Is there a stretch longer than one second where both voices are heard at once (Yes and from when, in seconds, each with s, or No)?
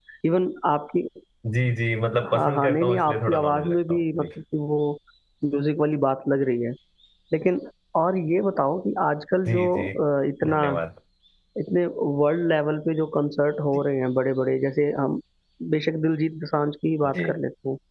Yes, from 2.3 s